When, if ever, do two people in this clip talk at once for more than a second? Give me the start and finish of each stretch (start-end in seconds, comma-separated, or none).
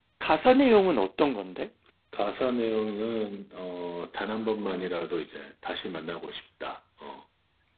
none